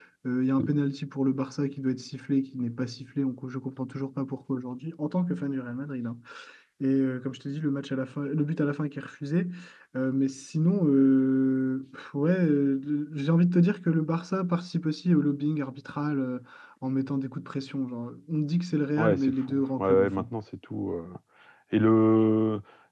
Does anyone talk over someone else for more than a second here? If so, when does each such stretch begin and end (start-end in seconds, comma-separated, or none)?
19.0-20.2